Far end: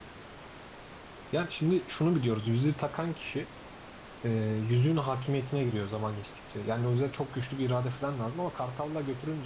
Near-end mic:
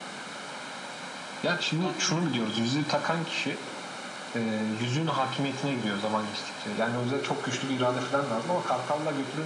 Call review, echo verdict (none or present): present